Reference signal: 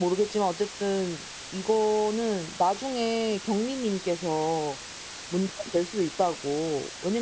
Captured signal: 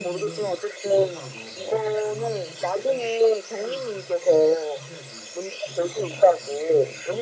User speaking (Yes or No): Yes